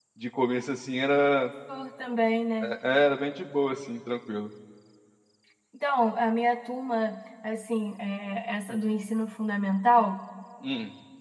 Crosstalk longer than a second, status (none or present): none